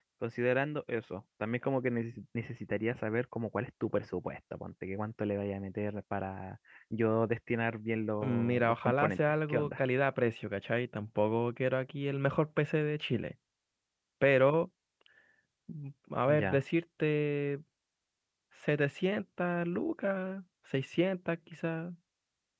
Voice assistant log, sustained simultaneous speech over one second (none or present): present